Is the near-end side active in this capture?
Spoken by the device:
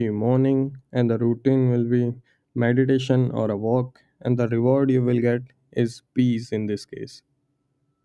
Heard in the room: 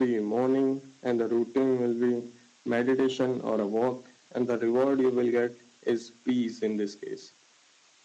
No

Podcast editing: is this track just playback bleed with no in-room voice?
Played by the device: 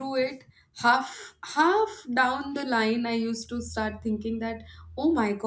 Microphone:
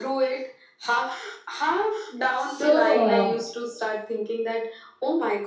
No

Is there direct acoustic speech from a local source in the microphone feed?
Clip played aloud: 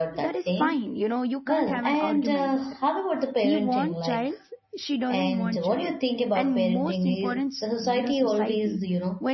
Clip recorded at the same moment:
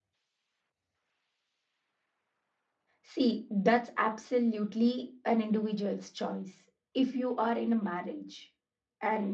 Yes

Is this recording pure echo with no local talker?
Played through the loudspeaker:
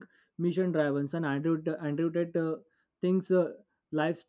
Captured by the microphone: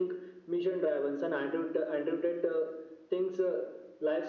Yes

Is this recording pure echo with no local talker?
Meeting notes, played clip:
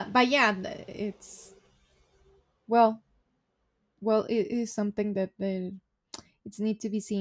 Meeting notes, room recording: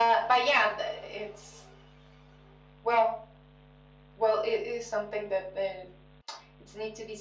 Yes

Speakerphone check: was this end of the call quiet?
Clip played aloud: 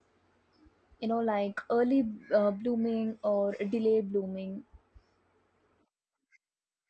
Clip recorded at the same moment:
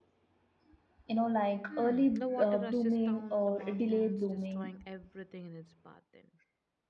No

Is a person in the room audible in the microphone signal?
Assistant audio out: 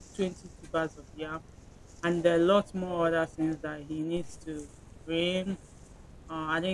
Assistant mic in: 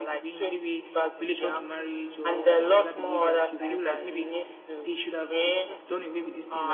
Yes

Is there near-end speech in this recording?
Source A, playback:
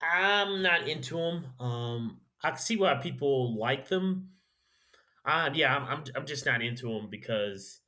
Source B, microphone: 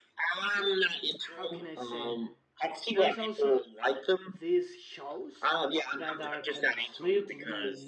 Yes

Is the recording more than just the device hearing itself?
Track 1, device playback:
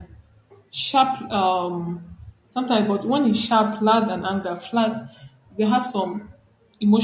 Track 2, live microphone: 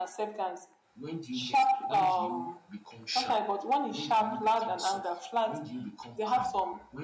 Yes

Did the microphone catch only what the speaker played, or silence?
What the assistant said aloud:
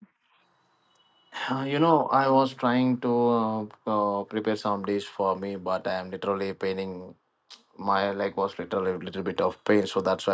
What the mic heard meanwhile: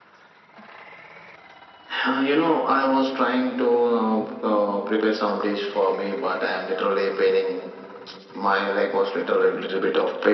Yes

